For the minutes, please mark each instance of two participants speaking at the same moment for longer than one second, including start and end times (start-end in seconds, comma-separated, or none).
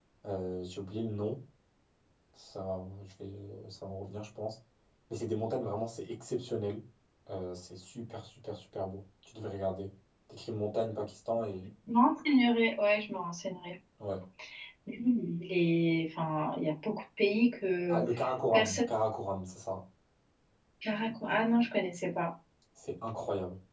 none